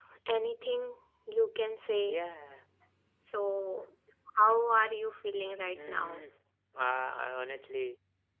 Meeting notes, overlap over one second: none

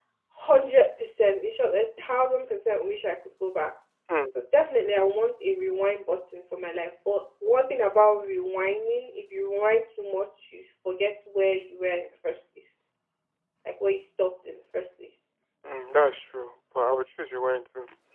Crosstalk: none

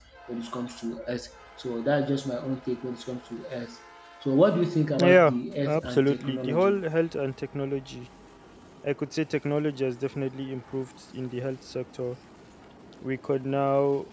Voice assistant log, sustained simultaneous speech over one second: present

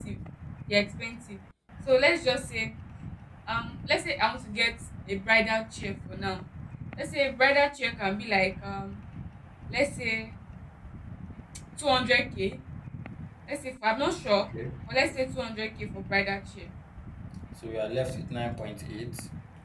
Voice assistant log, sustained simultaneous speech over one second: none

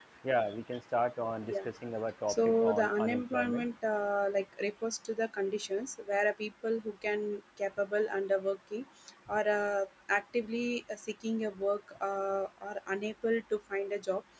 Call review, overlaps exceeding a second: present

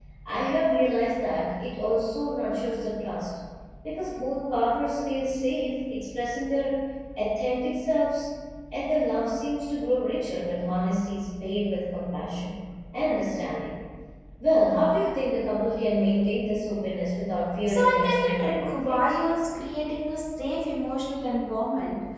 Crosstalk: present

